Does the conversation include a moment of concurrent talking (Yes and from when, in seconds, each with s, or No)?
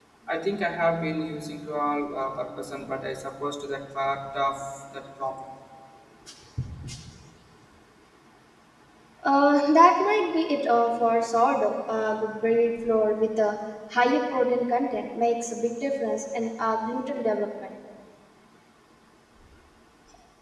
No